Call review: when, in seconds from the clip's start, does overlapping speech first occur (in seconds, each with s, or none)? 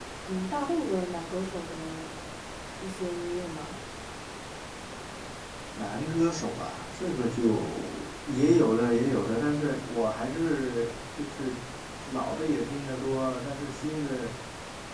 none